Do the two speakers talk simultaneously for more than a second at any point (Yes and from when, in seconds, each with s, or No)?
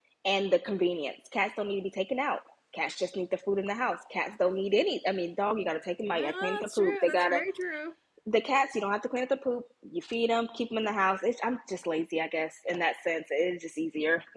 Yes, from 6.1 s